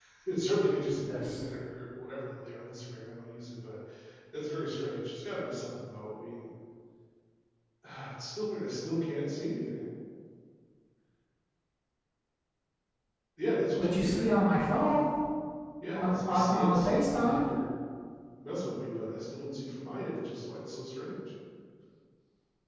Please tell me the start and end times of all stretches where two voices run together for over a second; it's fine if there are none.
15.9-17.4

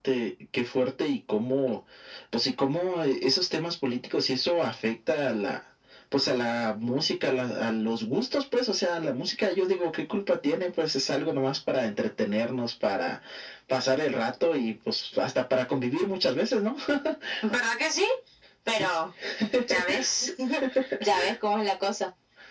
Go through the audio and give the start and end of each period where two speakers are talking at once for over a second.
none

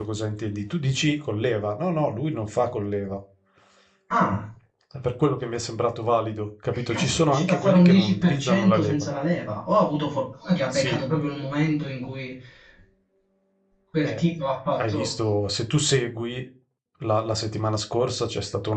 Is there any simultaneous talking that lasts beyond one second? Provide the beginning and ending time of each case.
6.7-9.1

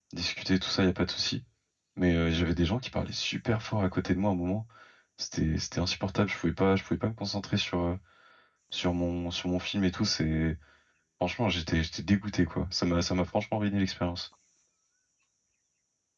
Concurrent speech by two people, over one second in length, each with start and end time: none

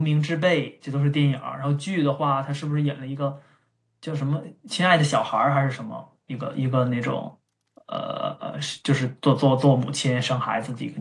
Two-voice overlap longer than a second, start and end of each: none

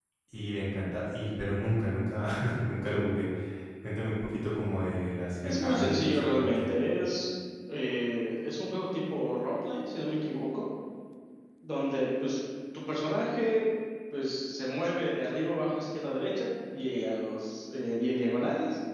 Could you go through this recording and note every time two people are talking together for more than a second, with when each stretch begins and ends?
5.4-6.7

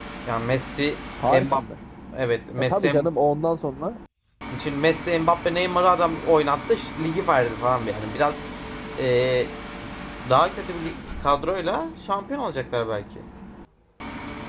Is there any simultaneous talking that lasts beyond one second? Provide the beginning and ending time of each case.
none

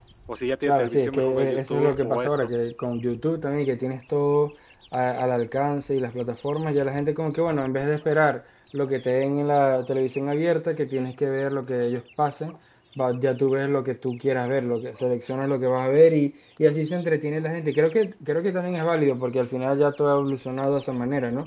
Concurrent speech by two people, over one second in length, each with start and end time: 0.7-2.5

